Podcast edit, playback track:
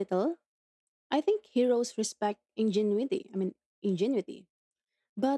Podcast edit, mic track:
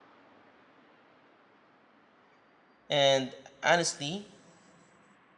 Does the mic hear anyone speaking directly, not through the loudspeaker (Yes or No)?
Yes